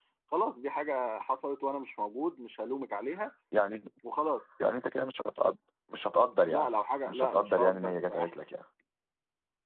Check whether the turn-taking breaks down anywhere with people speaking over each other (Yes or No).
Yes